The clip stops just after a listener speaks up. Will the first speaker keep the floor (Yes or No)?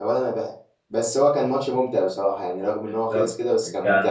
No